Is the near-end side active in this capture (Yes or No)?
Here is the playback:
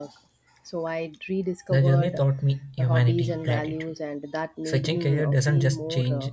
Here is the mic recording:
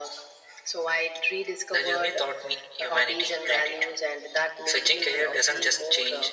No